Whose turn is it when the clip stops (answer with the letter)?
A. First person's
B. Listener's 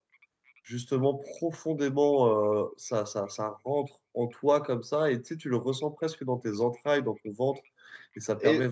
A